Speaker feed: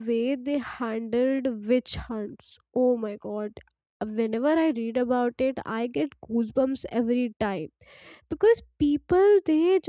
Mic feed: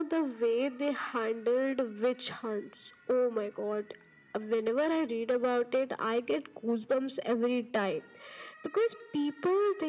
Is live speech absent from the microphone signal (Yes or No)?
Yes